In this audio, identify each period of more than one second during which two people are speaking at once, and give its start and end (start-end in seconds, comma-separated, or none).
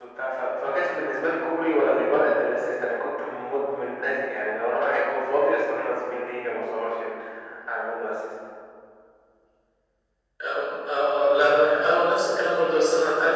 none